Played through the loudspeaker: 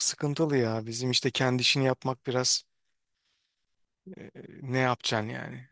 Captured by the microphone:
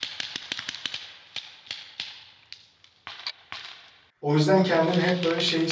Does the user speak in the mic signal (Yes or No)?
Yes